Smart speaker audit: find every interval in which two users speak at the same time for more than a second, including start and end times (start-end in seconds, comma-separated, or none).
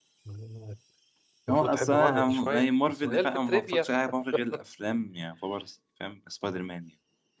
1.5-3.9